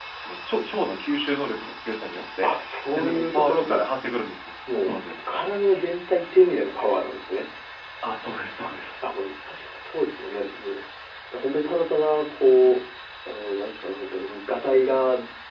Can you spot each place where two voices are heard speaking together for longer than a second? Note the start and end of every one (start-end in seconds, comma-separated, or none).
2.4-3.9